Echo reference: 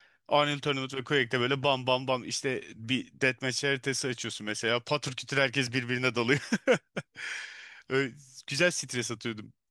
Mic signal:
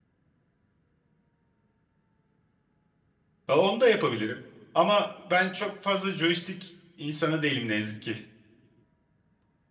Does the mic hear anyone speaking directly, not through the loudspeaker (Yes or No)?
Yes